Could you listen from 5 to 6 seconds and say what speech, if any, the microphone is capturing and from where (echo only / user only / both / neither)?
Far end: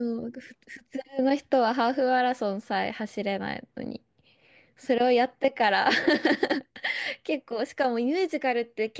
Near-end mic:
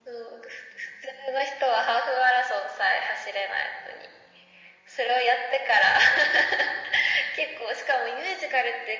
echo only